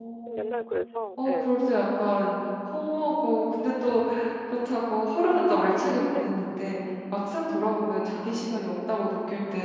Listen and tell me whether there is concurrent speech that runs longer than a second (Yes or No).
No